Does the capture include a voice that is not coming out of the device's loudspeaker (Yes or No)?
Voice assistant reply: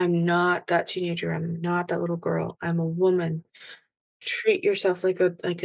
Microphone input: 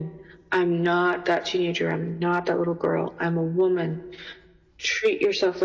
No